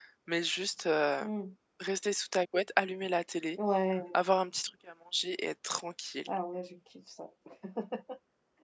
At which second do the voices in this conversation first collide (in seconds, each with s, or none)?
none